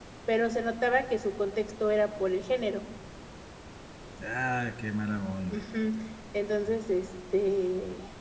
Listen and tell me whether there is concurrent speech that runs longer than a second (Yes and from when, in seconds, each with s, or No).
No